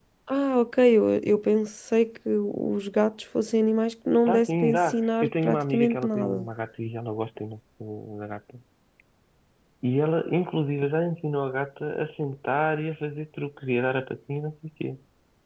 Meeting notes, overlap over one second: present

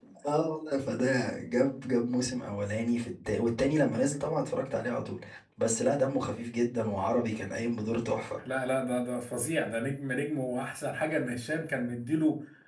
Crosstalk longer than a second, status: none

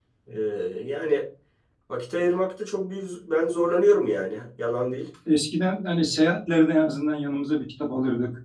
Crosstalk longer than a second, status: none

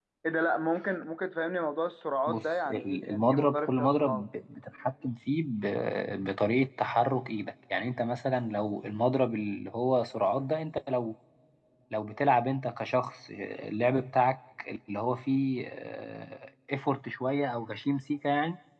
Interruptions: present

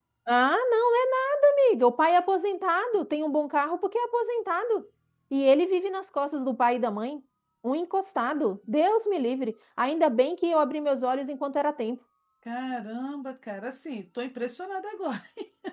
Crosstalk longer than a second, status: none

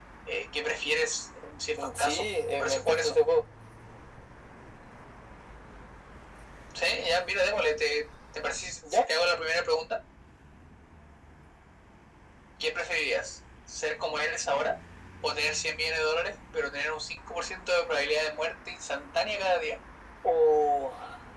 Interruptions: present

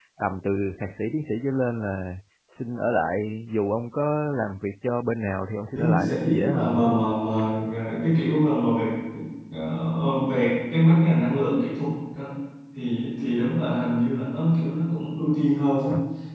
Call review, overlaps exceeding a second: present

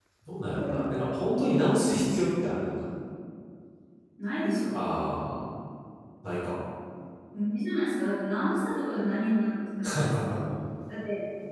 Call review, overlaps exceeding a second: none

